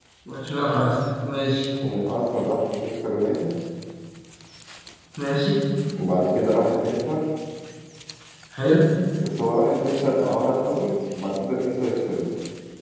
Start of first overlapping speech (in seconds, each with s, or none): none